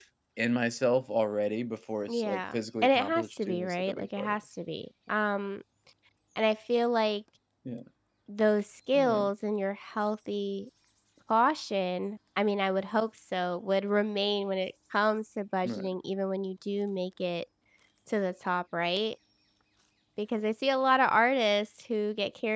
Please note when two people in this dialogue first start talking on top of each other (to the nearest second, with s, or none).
2 s